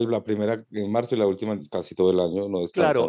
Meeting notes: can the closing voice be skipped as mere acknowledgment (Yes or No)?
No